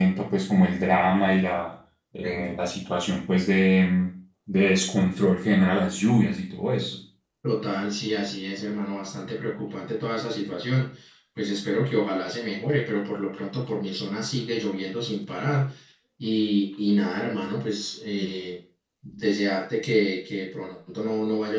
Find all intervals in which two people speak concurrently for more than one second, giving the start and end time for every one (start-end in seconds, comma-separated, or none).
none